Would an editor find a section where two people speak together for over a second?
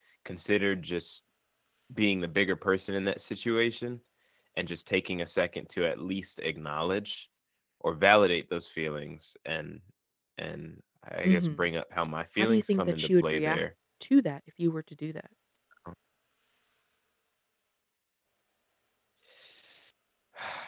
Yes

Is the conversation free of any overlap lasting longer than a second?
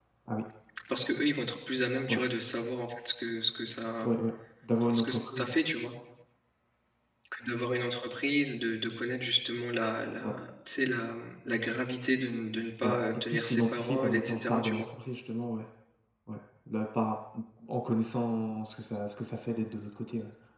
No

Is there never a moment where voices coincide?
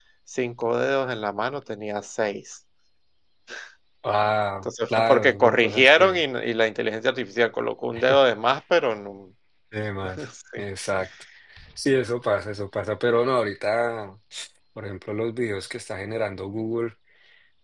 No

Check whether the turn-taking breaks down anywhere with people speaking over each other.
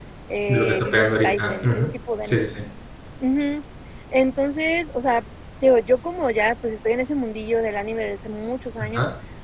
Yes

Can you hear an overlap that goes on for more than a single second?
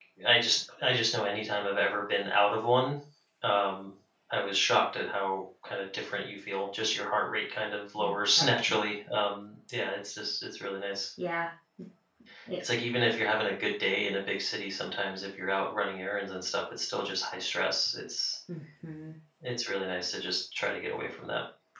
No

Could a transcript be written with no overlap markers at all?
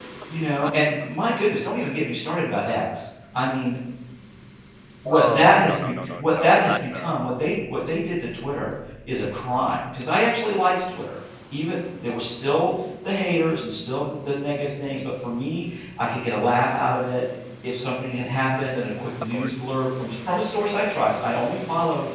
No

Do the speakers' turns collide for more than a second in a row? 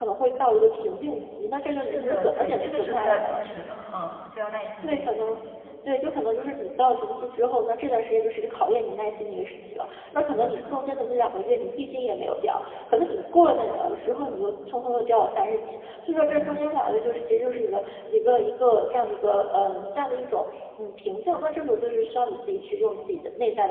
Yes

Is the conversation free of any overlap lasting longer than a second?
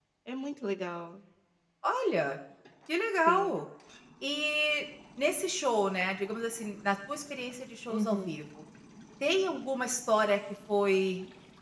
Yes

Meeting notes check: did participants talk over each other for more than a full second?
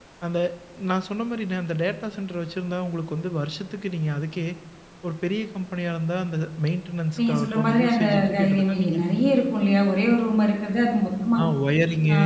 Yes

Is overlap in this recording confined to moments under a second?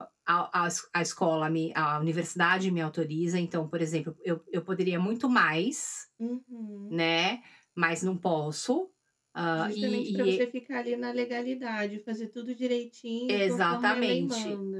No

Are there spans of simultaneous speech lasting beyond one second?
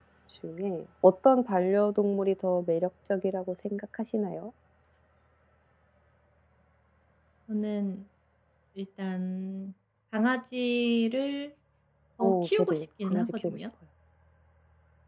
Yes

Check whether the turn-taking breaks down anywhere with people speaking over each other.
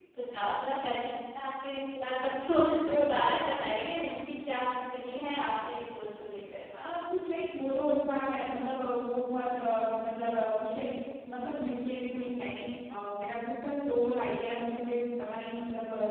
No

